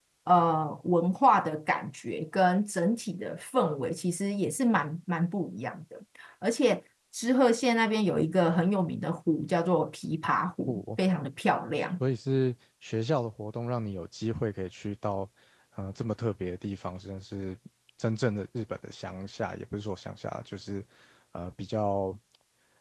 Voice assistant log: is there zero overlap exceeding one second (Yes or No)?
Yes